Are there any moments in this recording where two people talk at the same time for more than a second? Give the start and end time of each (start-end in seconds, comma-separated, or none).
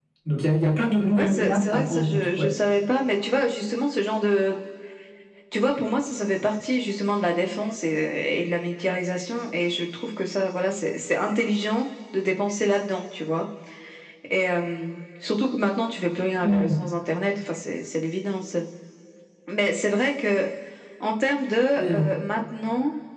1.1-2.5